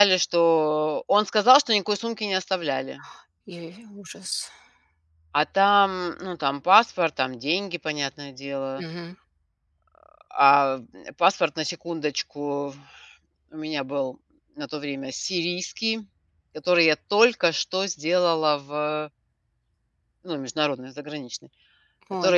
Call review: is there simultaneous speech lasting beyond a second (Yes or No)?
No